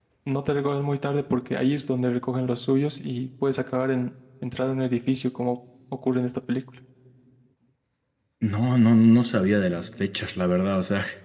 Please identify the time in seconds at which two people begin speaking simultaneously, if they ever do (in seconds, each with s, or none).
none